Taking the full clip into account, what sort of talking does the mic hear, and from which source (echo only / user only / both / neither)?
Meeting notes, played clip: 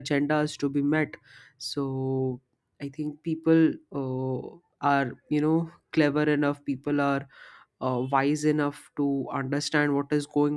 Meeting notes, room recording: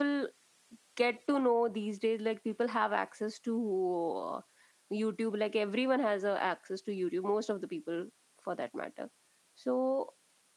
user only